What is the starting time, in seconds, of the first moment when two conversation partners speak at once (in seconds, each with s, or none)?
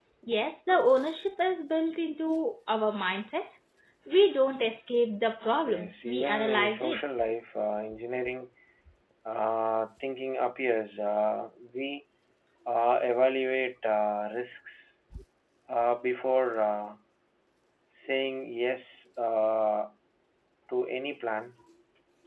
5.7 s